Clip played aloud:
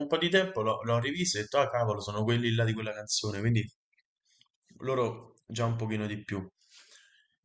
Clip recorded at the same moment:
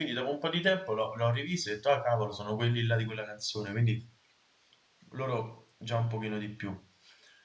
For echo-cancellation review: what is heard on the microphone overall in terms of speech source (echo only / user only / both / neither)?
echo only